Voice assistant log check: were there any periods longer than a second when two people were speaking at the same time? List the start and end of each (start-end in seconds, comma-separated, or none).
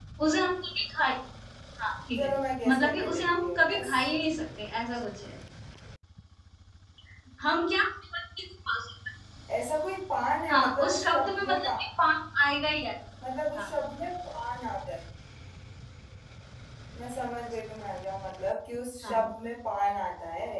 2.7-3.9, 10.5-11.7